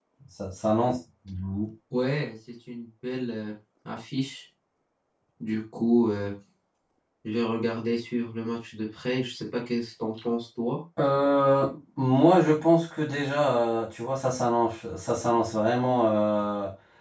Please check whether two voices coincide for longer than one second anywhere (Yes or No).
No